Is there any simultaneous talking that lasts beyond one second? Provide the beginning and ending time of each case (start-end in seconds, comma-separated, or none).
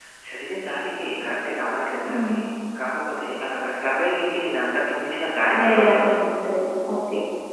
none